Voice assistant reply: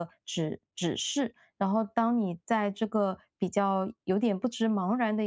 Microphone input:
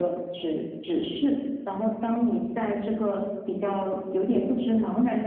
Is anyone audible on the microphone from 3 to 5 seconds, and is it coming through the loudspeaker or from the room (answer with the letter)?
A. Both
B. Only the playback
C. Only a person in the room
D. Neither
B